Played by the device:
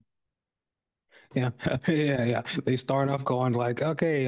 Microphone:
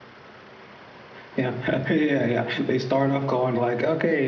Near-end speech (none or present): none